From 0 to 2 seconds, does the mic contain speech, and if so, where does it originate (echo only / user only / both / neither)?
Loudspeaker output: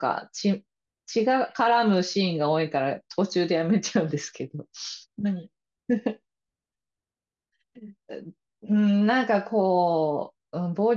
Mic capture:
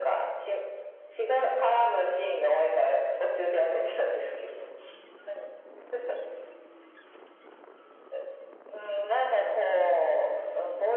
echo only